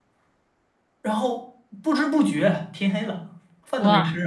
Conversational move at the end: taking over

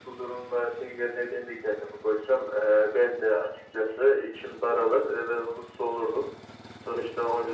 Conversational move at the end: listening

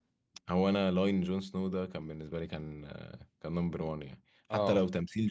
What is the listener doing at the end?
listening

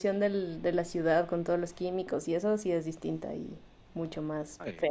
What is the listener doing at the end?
taking over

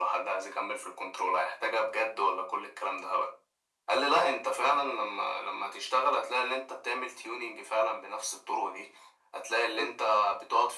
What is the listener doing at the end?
listening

